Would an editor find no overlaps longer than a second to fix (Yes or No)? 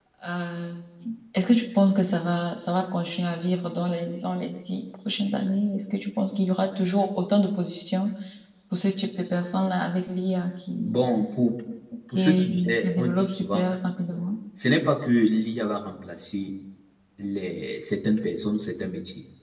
No